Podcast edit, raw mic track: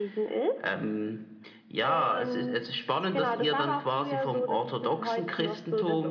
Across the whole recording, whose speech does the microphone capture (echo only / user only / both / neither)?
echo only